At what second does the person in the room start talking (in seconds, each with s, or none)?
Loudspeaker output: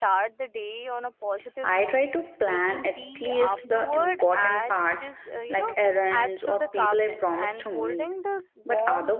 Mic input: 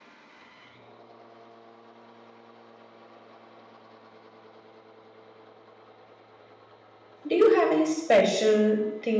7.3 s